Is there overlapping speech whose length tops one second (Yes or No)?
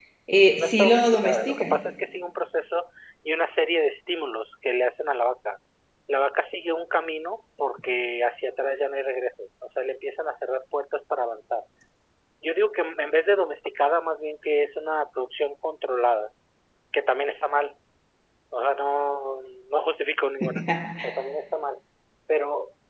Yes